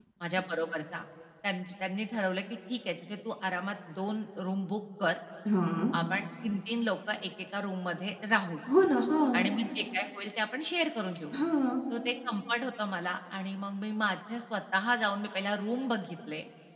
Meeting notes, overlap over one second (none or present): none